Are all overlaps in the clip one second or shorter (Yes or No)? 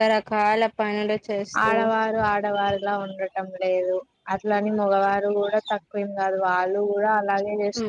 Yes